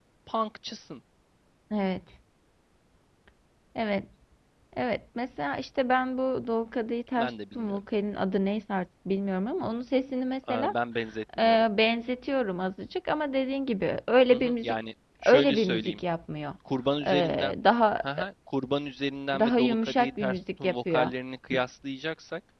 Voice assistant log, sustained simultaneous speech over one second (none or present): present